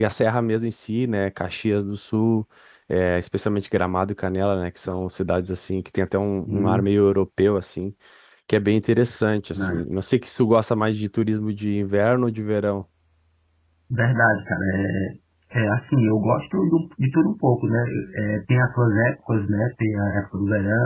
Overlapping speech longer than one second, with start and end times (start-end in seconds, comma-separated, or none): none